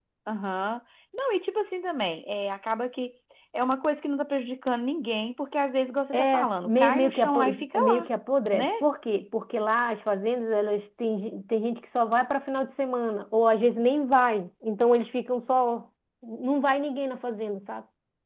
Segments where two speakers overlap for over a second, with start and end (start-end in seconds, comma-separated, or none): 6.1-8.1